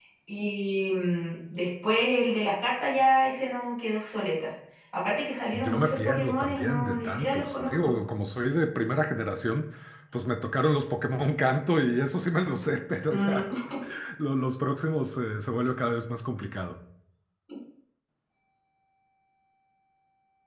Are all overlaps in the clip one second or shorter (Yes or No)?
No